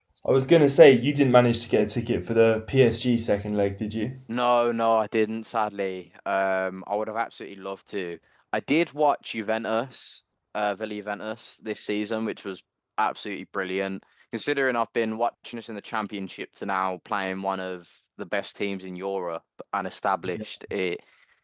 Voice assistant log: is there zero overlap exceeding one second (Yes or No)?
Yes